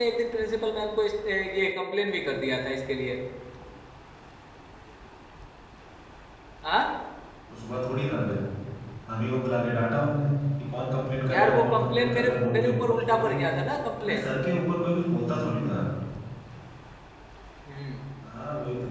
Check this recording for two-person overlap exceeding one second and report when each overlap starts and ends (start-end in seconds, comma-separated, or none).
11.3-13.5